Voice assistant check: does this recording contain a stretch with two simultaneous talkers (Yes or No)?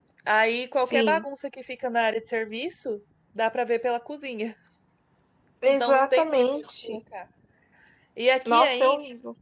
Yes